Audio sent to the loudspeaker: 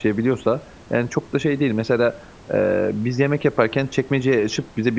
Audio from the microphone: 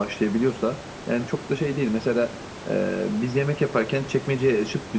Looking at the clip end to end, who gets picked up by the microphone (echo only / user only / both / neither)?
echo only